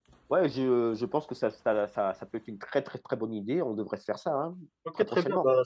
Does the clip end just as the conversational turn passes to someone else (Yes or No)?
Yes